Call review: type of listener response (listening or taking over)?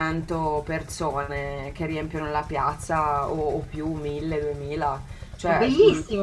taking over